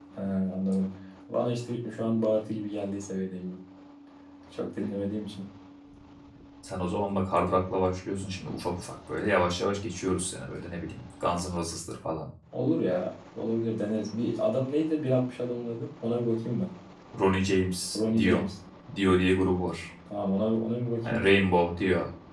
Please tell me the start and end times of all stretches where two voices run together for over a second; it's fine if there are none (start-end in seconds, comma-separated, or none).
none